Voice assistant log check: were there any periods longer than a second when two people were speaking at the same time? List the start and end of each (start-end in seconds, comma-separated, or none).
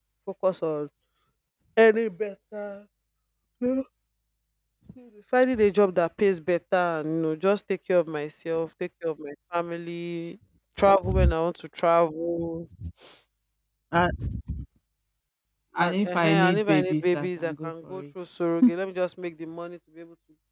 15.8-18.0